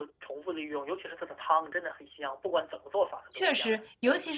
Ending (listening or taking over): taking over